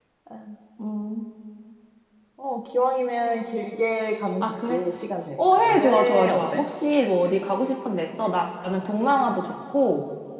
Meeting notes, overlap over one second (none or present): present